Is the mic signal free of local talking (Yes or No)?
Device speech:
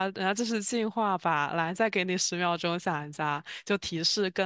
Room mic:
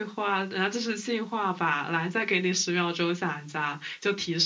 Yes